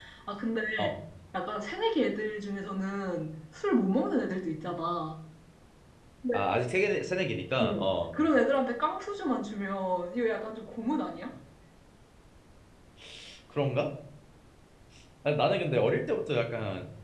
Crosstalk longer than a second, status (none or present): none